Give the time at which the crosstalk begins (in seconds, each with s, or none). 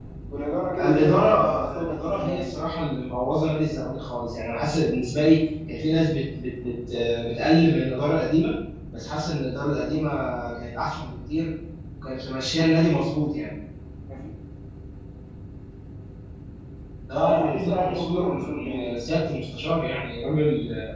0.8 s